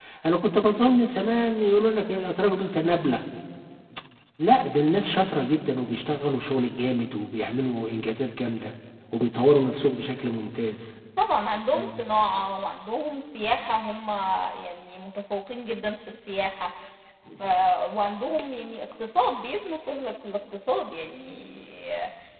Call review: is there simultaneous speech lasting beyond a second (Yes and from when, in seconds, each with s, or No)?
No